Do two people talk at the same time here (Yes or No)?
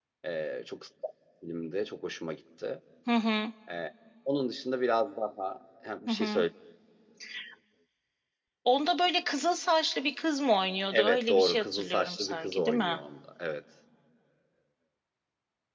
Yes